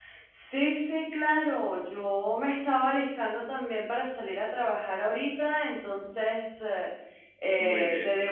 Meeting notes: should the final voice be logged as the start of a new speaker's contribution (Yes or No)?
No